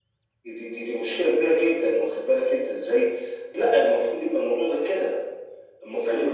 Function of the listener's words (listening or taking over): listening